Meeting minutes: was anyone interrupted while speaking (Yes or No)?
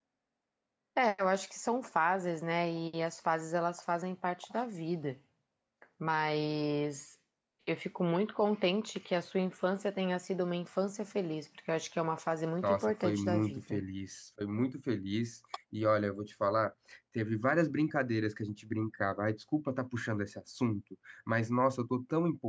Yes